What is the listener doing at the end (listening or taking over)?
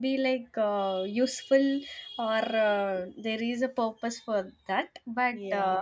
listening